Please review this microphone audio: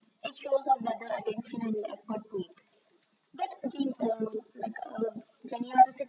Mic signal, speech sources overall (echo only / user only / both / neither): echo only